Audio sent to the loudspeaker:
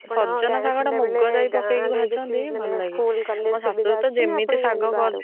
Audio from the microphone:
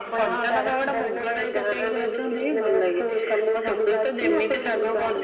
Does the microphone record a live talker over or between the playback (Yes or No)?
No